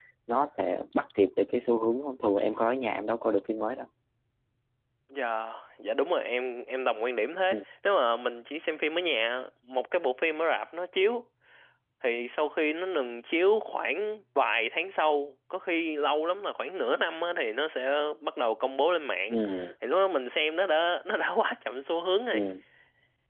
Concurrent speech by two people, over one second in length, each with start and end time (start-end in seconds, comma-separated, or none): none